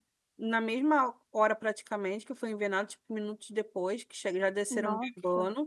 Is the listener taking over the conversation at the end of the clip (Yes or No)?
No